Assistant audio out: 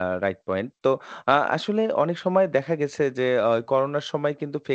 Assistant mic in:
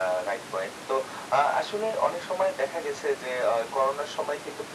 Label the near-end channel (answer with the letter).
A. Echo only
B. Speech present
A